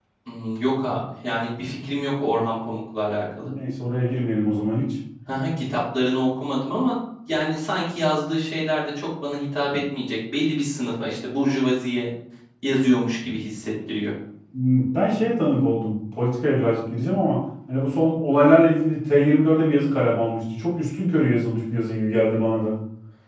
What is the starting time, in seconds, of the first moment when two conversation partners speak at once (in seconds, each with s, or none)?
none